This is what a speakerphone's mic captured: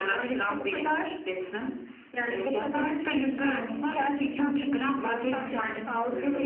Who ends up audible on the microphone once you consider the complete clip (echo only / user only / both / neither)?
echo only